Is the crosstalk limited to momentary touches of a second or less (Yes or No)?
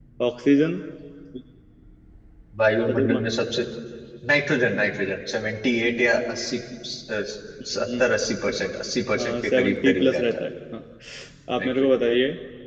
No